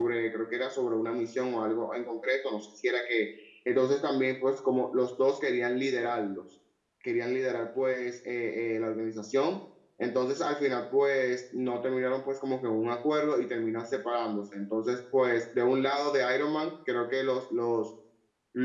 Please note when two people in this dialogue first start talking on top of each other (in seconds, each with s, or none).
none